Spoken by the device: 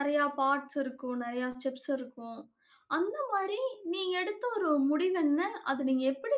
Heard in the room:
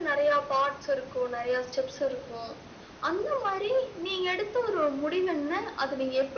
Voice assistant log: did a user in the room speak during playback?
No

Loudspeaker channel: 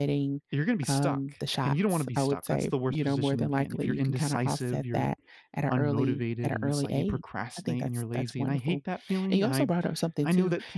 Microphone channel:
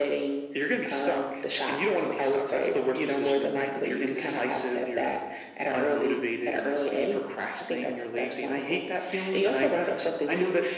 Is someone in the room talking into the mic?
No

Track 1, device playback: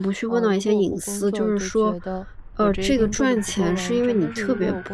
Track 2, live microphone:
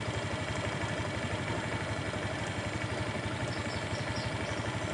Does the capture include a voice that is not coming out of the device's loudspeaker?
No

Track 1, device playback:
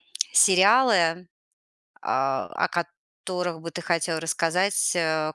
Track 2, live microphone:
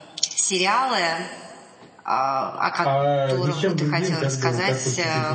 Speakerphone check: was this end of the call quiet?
No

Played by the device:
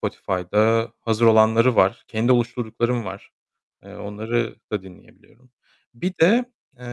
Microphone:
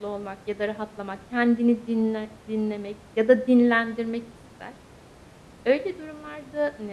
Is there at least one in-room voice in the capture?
Yes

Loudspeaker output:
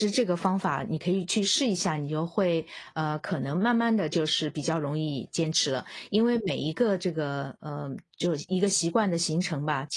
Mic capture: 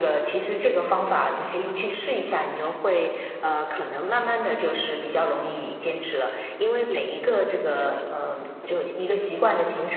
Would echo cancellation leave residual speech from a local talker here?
No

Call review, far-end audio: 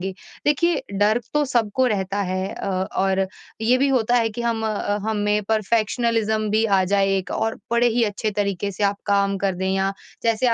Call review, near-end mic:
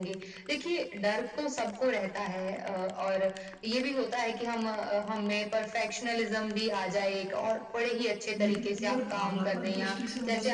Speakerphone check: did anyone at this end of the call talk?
Yes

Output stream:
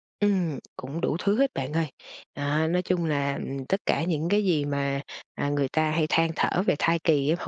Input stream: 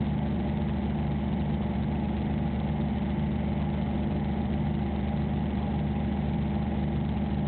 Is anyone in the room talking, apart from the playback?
No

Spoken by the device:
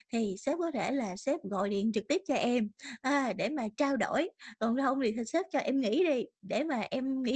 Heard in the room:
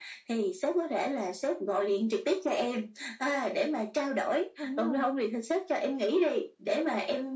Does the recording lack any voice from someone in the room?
No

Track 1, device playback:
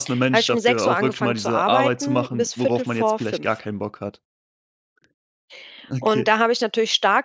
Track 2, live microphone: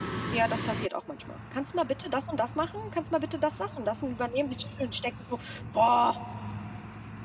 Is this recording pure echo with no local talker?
No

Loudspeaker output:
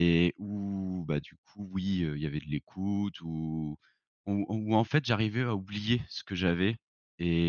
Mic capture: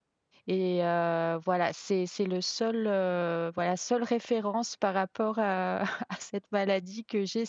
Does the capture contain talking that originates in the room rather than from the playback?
Yes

